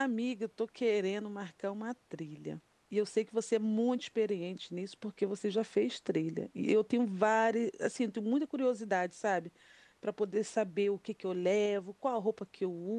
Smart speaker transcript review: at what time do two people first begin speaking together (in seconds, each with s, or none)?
none